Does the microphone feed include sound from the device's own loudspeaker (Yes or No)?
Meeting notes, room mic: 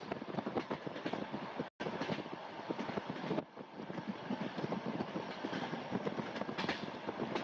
No